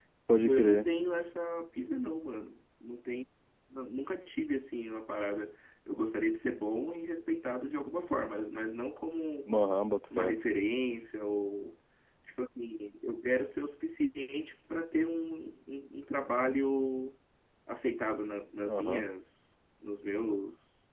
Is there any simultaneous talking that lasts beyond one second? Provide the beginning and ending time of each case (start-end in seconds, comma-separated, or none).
none